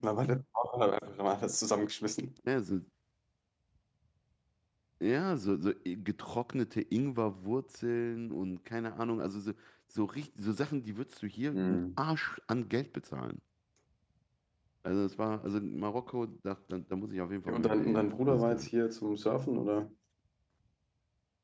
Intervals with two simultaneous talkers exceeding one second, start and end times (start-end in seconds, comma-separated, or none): 17.5-18.7